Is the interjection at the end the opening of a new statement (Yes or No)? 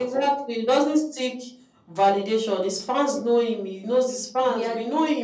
No